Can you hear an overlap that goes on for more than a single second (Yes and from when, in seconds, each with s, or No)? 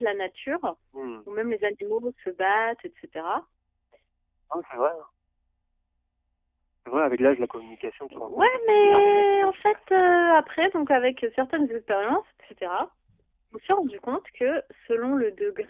Yes, from 8.1 s